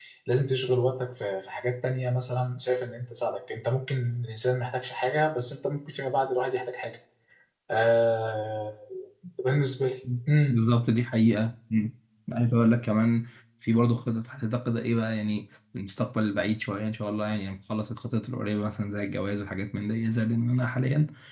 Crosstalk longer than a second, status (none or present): none